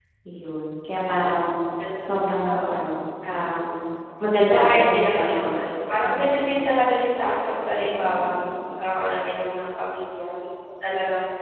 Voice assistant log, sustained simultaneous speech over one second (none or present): present